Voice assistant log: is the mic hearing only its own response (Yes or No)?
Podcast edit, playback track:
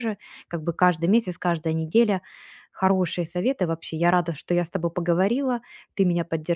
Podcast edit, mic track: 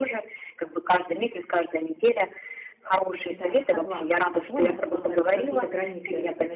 No